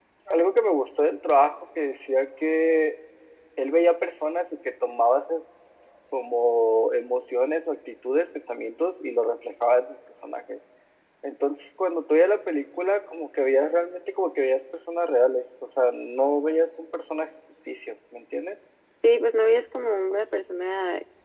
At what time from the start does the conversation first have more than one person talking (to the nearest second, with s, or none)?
none